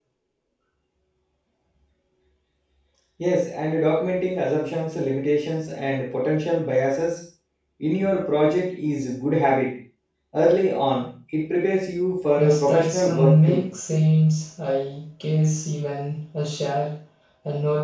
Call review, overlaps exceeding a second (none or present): present